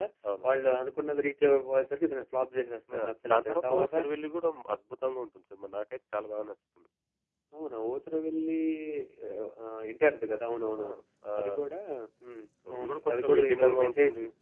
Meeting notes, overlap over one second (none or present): present